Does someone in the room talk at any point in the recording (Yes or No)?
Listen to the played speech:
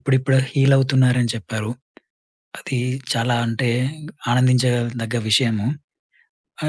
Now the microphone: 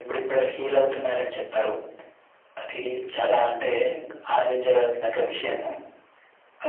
No